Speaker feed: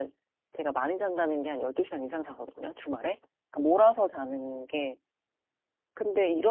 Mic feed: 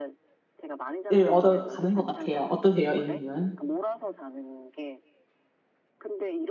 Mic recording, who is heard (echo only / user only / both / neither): both